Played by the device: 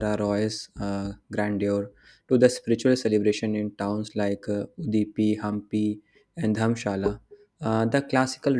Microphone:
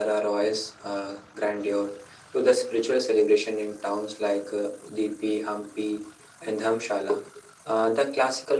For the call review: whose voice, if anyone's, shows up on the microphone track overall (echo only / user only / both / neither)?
echo only